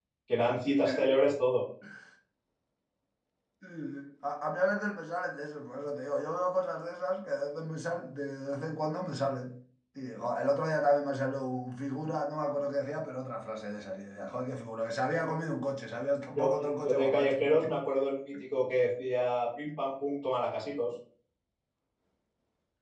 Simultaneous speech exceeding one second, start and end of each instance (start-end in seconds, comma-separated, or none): 16.4-17.7